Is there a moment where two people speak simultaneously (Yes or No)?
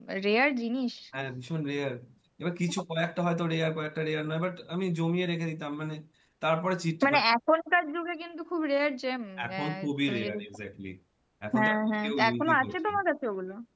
Yes